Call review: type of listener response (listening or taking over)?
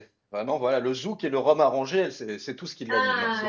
taking over